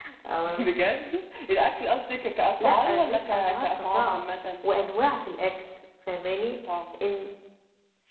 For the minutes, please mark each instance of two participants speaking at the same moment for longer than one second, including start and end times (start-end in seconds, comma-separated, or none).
2.6-4.2